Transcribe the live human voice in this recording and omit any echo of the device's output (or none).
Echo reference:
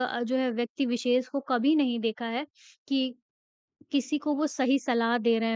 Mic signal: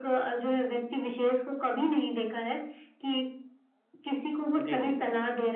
जी, जी, बिल्कुल।